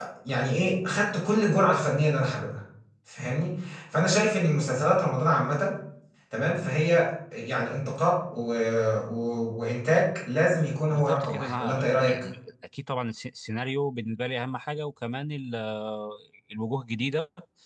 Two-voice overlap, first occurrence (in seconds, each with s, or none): 10.9 s